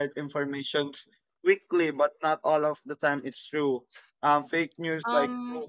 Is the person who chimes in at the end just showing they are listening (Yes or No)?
No